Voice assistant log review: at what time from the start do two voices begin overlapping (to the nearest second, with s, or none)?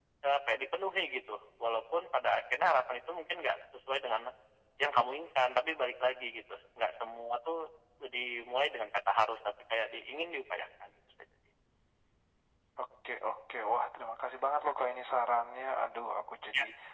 none